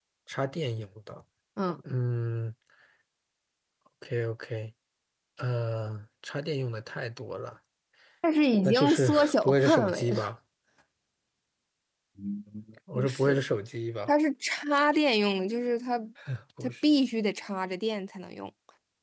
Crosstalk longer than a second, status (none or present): present